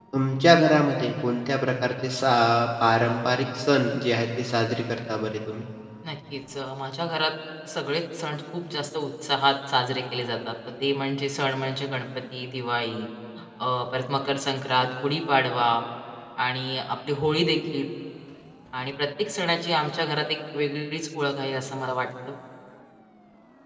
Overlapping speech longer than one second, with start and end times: none

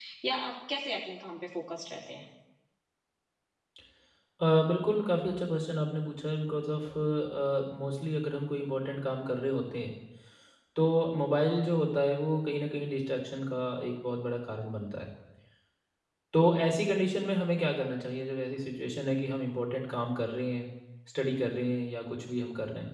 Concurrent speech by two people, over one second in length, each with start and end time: none

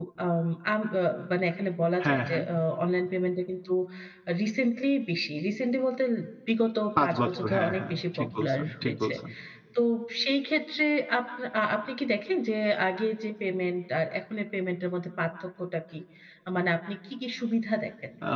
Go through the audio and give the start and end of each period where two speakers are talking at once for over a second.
7.0-9.1

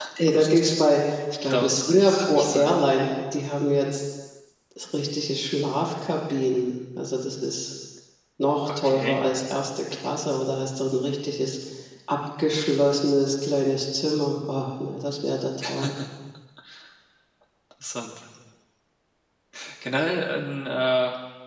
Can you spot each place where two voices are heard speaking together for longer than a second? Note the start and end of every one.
1.5-2.8

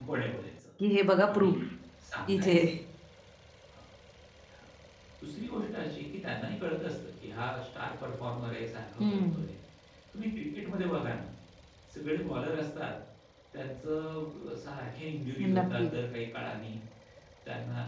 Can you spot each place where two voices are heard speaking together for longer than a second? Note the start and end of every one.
none

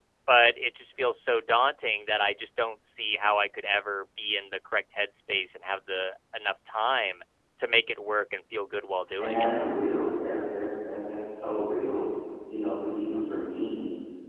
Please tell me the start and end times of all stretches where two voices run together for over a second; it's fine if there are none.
none

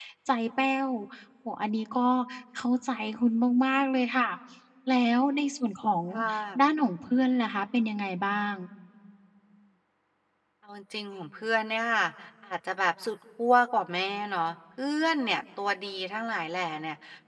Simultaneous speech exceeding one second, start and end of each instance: none

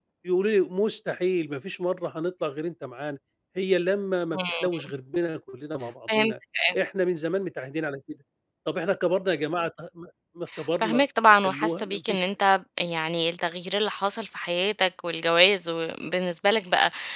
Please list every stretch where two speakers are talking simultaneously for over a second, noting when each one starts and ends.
10.8-12.2

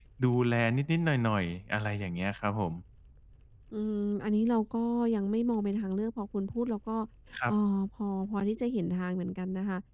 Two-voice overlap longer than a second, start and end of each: none

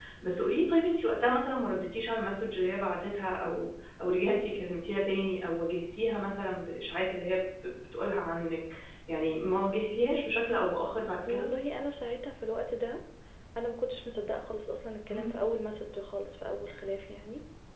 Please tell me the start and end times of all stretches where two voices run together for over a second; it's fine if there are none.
none

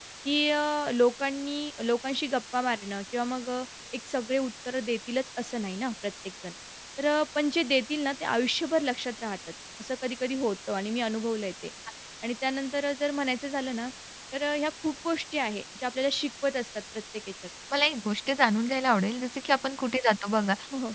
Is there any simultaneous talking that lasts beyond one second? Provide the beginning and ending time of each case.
none

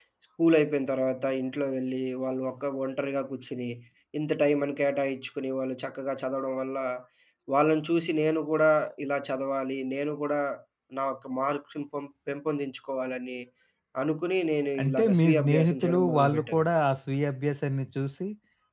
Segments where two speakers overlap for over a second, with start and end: 14.8-16.7

